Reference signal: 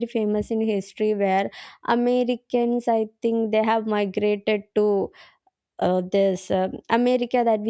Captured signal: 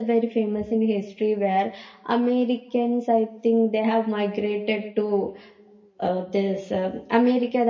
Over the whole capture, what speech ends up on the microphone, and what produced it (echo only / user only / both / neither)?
echo only